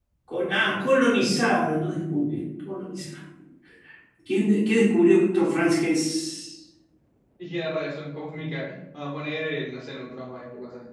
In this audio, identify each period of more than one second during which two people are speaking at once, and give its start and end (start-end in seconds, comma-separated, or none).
none